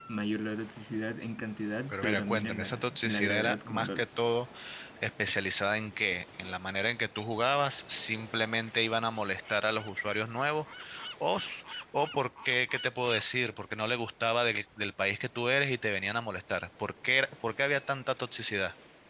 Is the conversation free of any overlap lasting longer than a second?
No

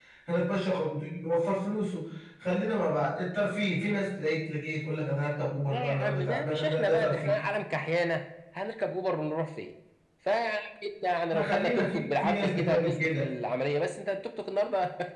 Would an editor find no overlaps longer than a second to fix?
No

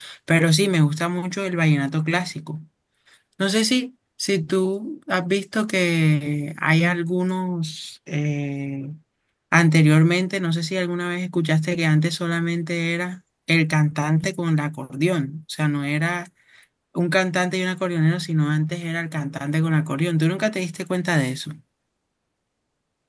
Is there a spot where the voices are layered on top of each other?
No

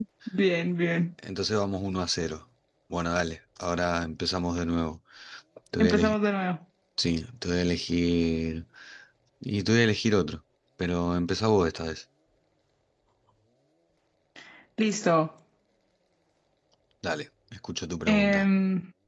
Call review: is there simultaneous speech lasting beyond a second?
No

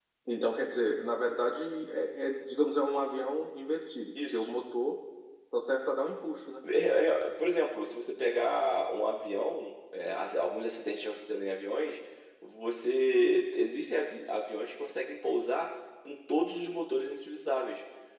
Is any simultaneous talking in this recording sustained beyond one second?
No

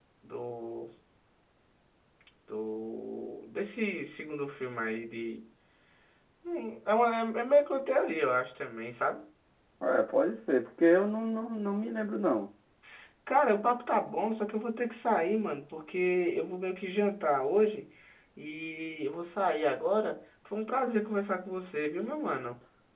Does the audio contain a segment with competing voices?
No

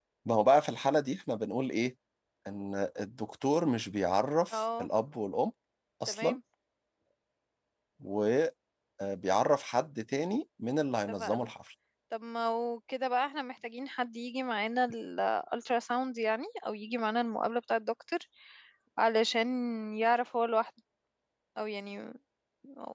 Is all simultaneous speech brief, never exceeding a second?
Yes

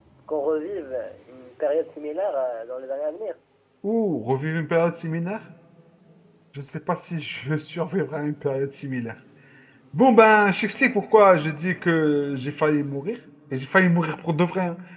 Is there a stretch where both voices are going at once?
No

